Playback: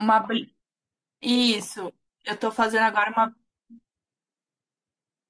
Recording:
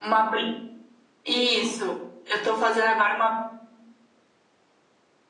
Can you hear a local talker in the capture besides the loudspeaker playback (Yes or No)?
No